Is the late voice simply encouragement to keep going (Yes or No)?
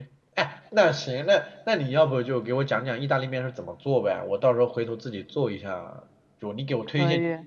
Yes